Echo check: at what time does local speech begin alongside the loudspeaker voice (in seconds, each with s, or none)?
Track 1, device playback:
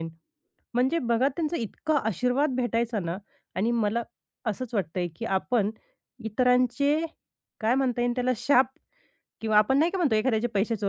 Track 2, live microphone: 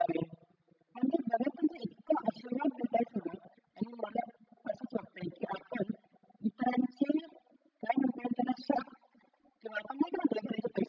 none